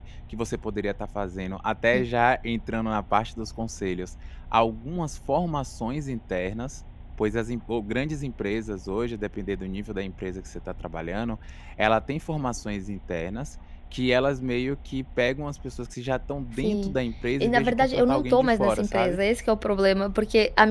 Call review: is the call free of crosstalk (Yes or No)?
No